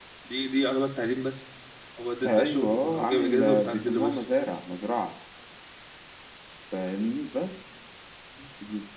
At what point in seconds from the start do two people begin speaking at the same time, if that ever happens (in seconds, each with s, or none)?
2.3 s